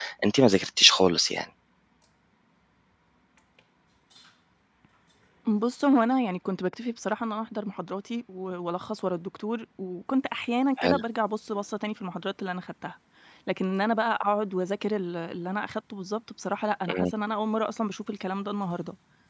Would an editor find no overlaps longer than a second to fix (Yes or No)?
Yes